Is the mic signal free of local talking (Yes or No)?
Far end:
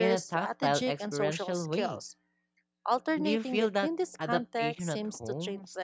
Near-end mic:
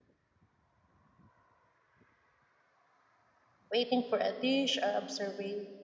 No